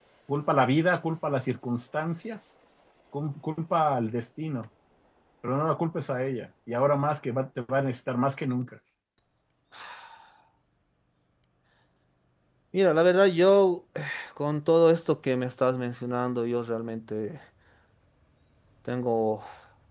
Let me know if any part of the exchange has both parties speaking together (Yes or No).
No